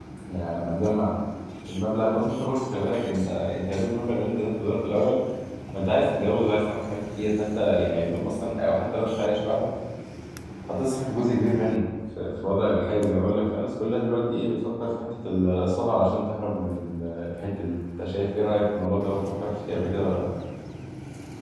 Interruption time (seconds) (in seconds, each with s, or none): none